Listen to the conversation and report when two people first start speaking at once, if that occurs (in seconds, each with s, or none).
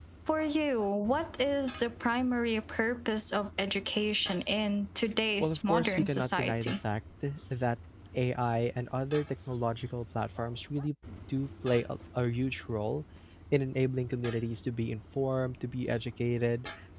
5.4 s